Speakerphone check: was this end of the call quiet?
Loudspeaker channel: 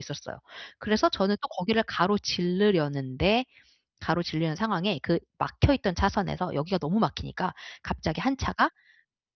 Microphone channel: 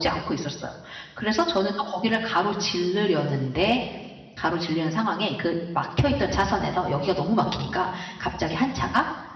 Yes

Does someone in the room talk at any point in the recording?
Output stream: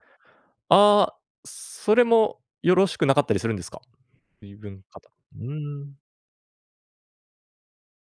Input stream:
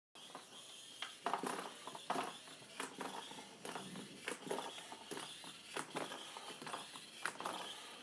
No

